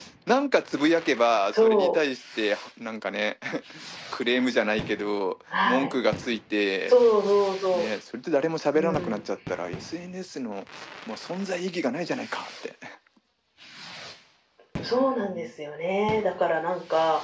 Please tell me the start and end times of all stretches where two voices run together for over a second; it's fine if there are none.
none

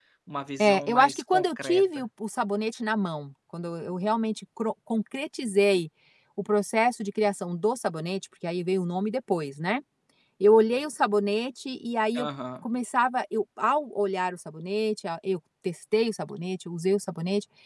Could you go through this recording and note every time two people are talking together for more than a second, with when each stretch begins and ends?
0.6-2.0

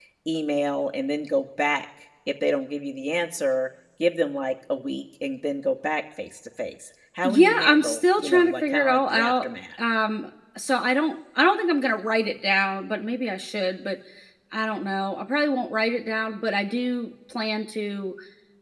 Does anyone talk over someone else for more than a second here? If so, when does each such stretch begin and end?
7.2-9.5

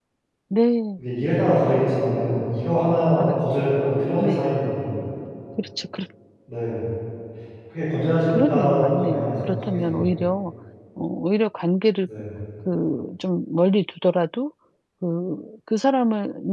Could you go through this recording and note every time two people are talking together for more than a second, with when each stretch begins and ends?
8.3-10.1

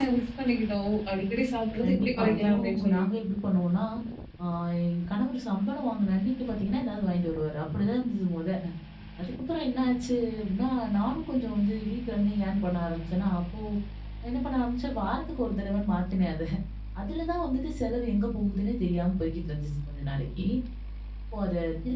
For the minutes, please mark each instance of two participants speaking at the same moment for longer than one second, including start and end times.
1.8-3.0

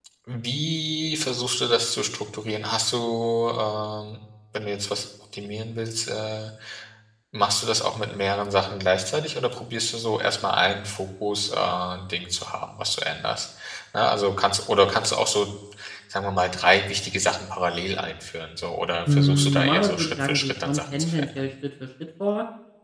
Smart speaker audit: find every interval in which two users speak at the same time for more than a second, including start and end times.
19.1-21.5

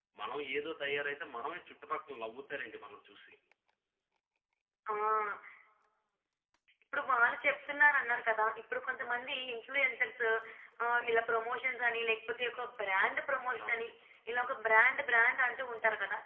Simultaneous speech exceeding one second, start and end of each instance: none

